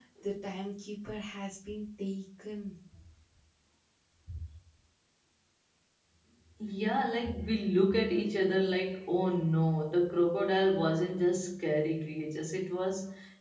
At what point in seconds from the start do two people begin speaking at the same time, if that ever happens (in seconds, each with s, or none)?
none